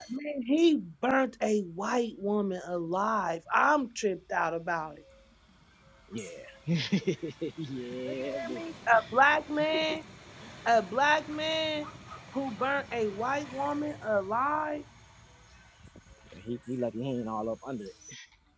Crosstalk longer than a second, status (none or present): none